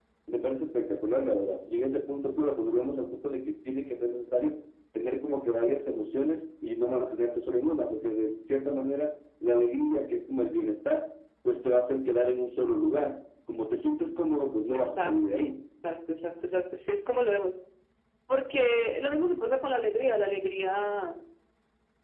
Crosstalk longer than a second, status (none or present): none